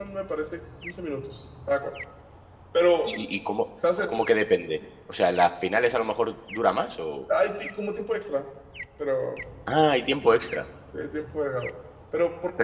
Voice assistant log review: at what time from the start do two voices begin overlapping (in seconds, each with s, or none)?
none